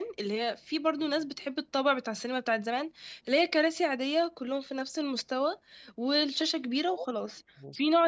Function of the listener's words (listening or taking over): listening